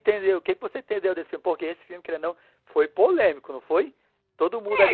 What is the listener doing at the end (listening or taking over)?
taking over